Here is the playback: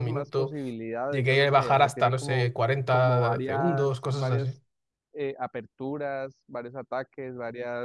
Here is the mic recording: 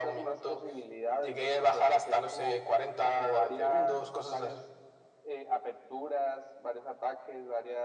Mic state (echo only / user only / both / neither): echo only